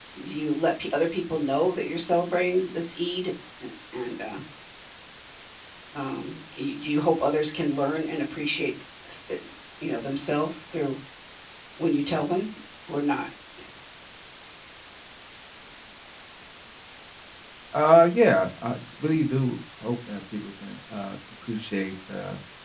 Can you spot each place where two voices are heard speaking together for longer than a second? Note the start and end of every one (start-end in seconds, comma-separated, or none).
none